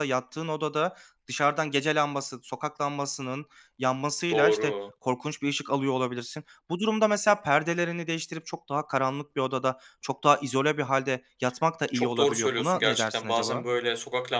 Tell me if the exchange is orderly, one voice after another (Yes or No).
No